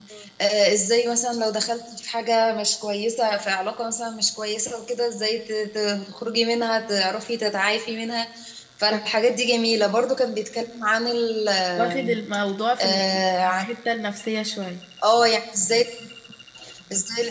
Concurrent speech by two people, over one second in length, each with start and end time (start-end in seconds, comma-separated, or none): none